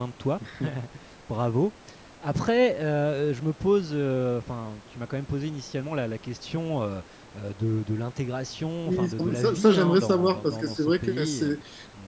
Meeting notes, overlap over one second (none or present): present